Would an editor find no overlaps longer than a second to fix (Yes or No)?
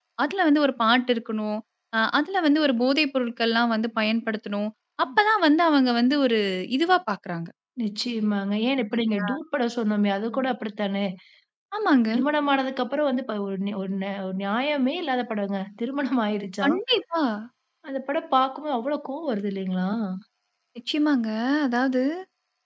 Yes